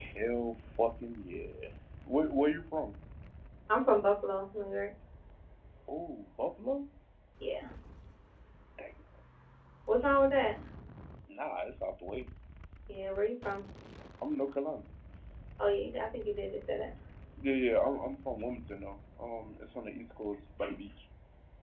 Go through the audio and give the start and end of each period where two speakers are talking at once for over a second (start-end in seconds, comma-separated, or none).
none